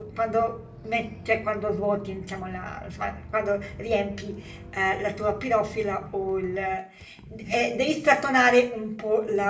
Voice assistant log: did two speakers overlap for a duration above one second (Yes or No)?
No